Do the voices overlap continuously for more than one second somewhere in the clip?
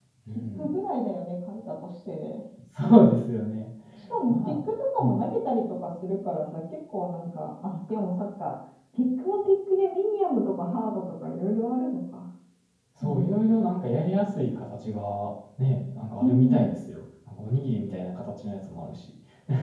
No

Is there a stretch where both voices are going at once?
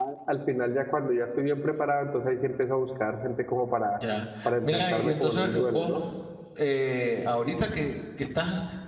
Yes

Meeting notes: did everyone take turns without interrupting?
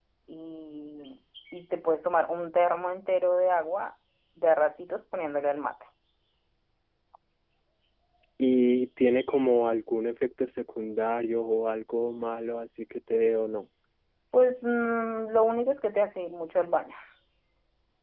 Yes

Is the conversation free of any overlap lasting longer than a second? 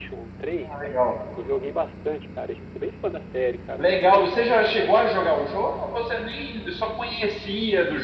Yes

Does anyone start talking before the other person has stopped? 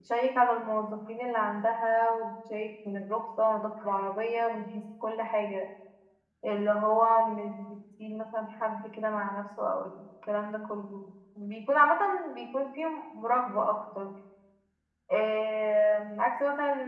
No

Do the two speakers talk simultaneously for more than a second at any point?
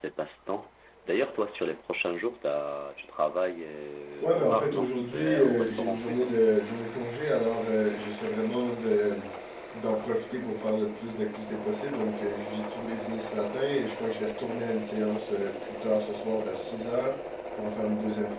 Yes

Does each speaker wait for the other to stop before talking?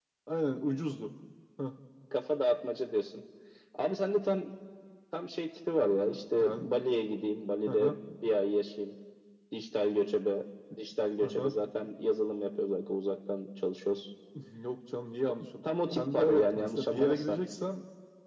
No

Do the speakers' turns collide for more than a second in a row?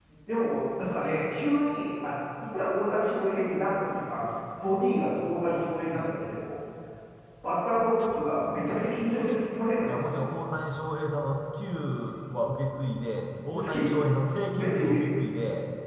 No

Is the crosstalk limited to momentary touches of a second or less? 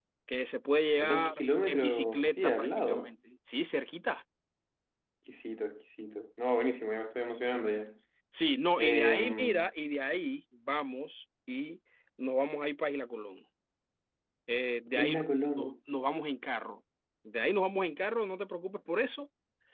No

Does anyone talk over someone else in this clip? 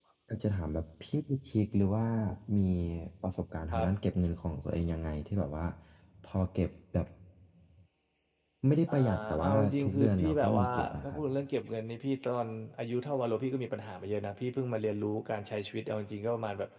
Yes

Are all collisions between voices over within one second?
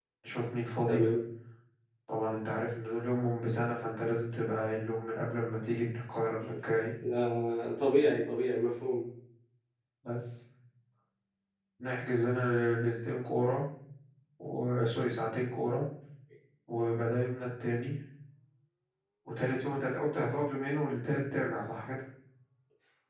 Yes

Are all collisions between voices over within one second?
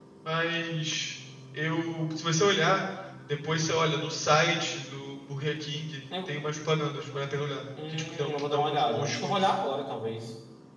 No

